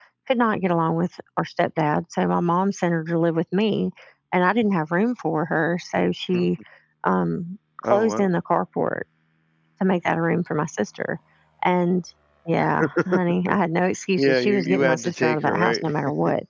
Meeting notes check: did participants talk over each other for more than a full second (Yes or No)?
Yes